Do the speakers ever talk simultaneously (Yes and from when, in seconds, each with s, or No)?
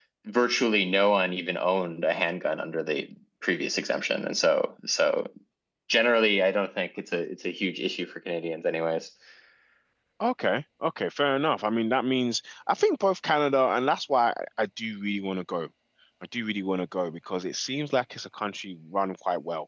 No